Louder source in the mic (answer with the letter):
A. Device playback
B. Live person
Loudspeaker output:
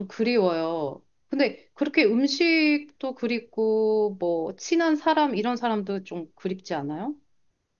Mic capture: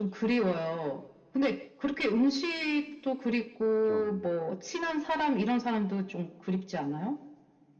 A